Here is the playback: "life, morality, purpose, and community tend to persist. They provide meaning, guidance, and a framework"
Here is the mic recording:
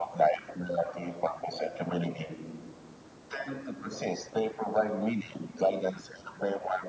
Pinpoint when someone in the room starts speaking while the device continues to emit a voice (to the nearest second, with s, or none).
none